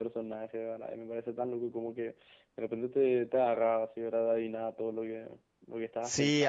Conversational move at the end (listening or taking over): taking over